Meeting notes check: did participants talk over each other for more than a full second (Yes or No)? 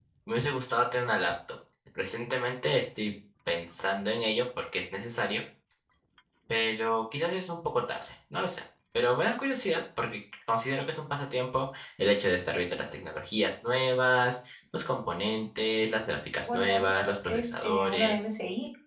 Yes